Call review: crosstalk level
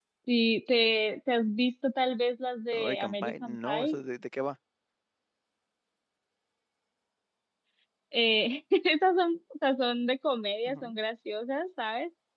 present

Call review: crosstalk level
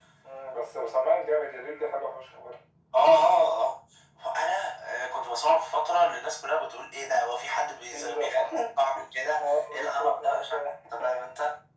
present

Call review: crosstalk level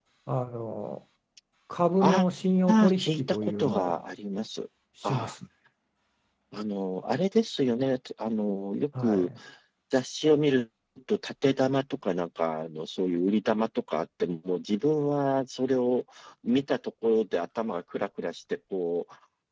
present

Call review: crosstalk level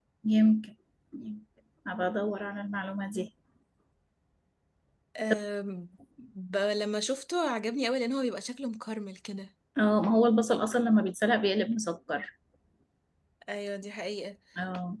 none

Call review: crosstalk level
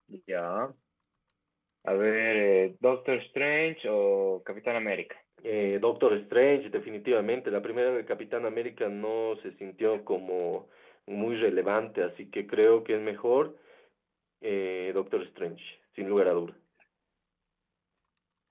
none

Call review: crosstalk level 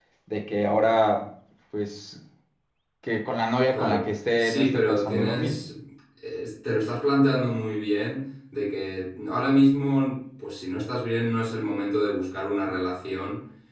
present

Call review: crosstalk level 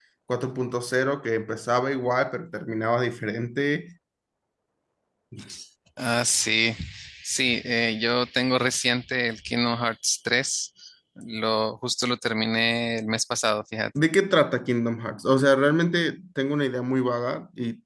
none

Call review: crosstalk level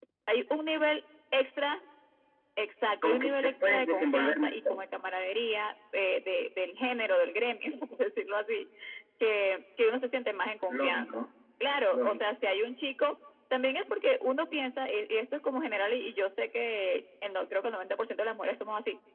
present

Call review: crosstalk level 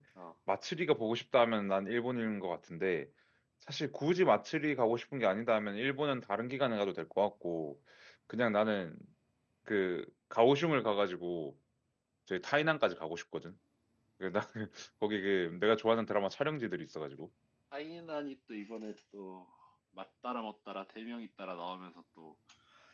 none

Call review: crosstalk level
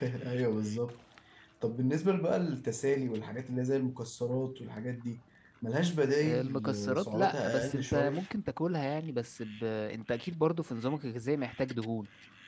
present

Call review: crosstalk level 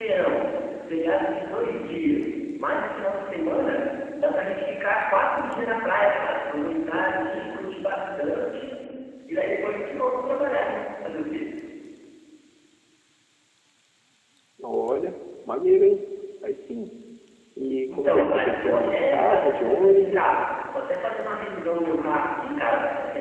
present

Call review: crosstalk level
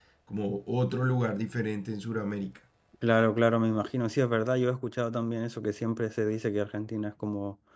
none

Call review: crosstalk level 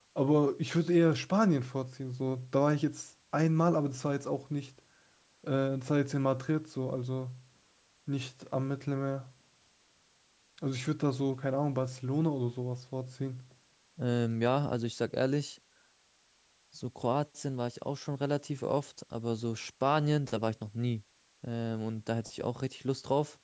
none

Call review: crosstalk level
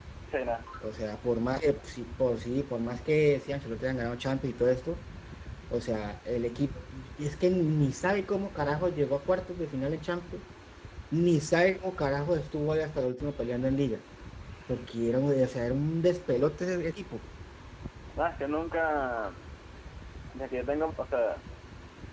none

